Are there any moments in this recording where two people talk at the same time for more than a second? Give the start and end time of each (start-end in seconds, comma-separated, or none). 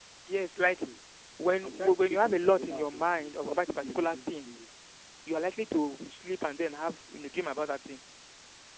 1.6-4.5